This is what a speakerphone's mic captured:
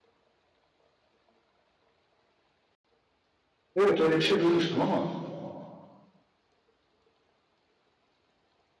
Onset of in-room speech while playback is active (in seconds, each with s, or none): 3.7 s